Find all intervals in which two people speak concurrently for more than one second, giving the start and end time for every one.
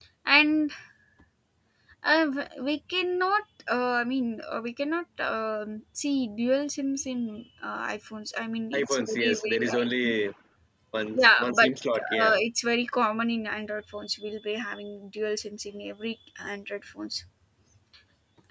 8.8-10.1

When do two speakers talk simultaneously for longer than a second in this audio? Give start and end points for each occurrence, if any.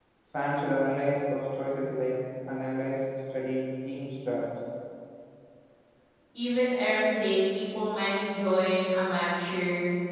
none

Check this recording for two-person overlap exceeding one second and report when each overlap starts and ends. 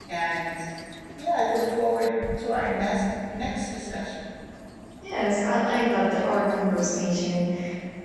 none

